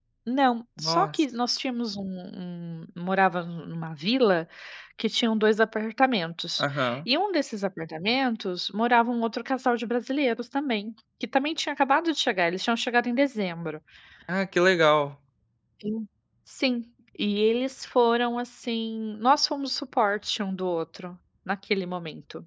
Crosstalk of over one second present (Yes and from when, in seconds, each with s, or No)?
No